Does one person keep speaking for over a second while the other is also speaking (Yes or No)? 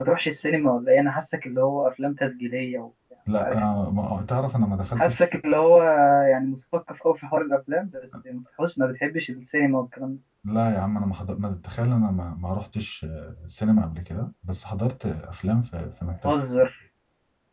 No